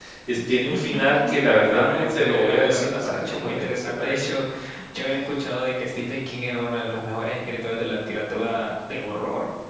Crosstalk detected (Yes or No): Yes